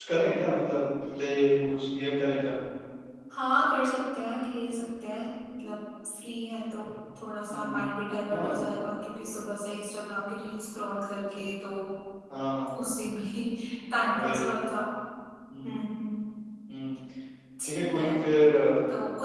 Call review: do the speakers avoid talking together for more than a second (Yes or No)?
Yes